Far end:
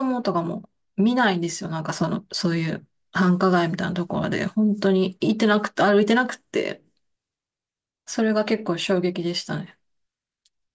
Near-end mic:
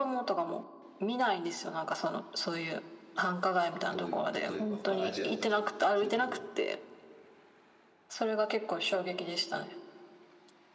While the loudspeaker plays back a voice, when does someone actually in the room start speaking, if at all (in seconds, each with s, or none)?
3.9 s